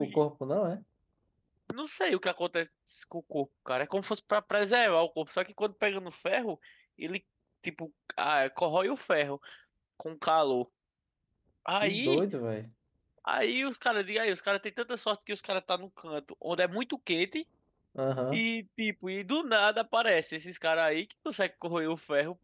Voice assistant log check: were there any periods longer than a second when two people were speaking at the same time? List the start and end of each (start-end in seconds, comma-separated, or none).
none